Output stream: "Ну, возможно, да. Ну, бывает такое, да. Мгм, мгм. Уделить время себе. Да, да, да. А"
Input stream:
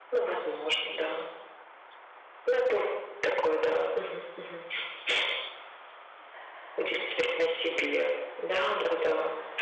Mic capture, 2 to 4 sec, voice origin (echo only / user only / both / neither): echo only